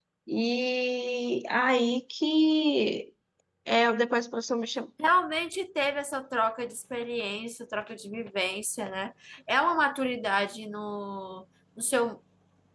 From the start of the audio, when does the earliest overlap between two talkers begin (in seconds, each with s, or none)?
none